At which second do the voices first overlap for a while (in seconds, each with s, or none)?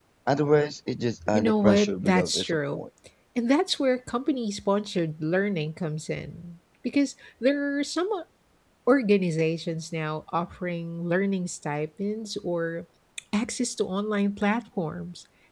1.3 s